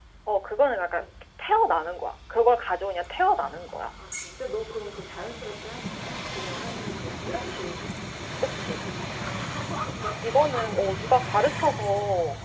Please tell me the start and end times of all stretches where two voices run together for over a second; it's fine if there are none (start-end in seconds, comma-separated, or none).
none